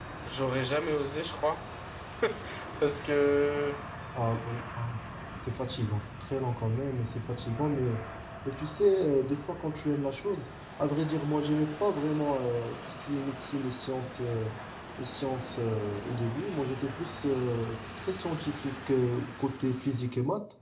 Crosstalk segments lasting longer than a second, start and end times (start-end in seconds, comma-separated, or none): none